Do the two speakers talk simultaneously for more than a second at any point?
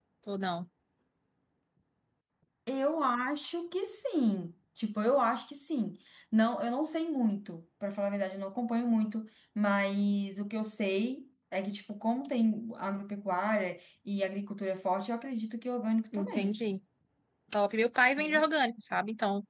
No

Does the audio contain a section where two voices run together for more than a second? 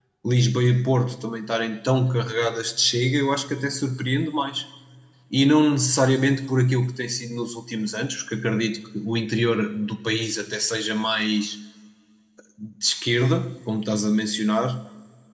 No

